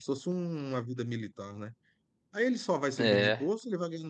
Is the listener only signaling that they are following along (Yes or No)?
Yes